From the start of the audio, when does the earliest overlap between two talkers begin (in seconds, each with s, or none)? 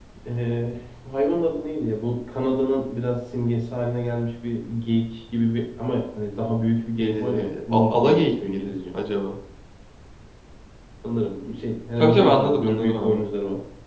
7.0 s